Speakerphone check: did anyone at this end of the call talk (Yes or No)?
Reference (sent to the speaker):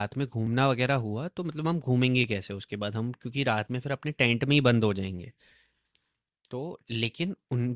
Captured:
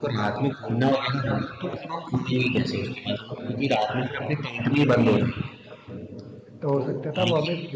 Yes